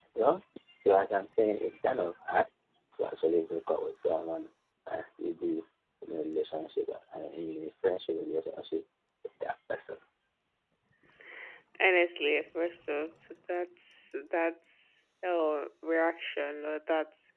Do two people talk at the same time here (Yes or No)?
No